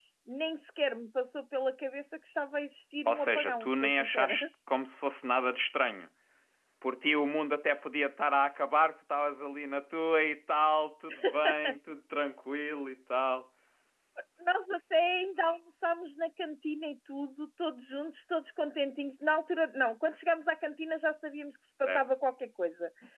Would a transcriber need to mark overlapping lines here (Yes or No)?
Yes